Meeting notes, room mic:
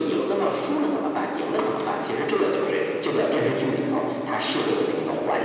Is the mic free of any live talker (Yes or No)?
Yes